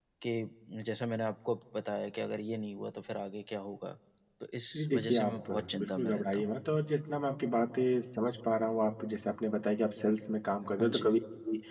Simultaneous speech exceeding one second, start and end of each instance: 4.8-6.5

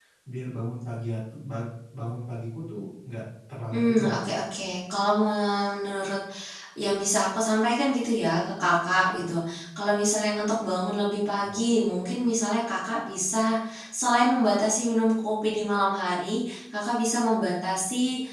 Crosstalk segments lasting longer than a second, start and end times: none

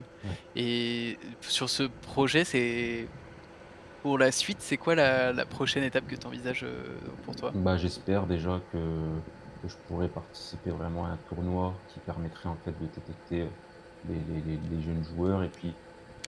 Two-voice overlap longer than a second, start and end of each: none

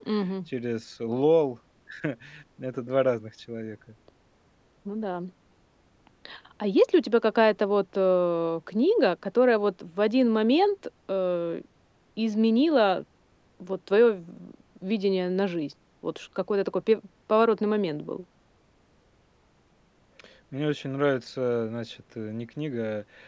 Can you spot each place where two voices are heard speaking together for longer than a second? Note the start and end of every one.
none

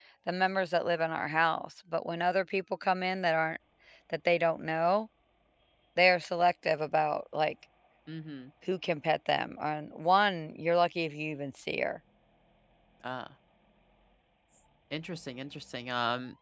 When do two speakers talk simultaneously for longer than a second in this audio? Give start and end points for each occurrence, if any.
none

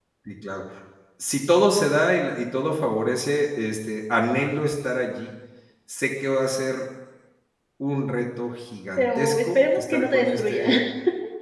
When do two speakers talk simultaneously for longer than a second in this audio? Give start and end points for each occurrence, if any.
9.0-10.6

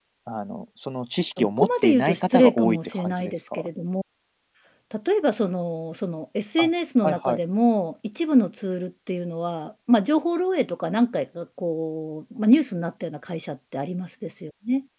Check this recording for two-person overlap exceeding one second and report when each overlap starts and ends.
1.4-3.7

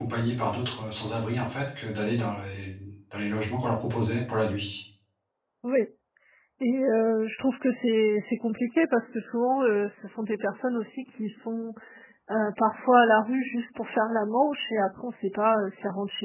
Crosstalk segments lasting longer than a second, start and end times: none

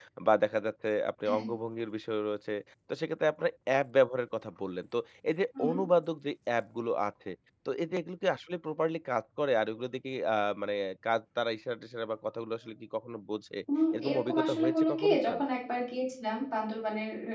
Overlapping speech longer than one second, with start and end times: 13.9-15.4

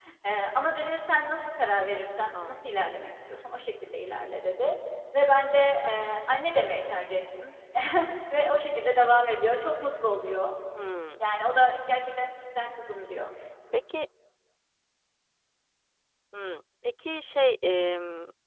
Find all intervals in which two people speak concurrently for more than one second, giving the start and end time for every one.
none

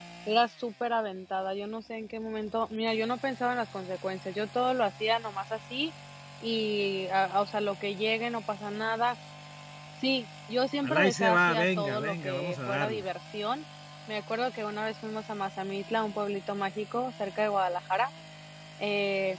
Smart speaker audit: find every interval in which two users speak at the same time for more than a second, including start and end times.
10.8-13.0

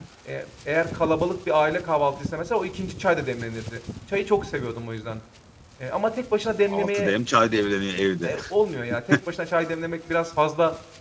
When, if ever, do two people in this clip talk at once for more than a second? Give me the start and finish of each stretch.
none

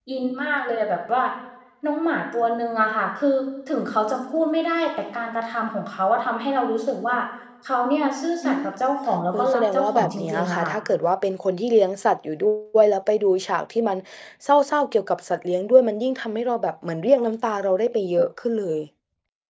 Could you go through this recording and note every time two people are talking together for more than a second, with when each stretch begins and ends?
9.3-10.7

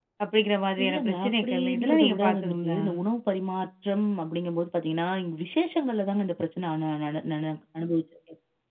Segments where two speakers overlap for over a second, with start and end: 0.8-2.8

